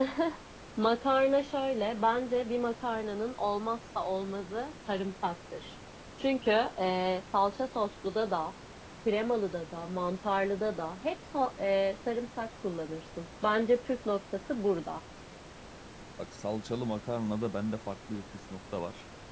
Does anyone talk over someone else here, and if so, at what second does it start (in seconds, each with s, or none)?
none